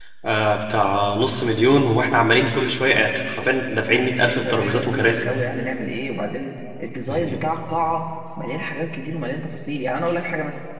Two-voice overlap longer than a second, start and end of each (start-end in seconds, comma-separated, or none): 3.9-5.3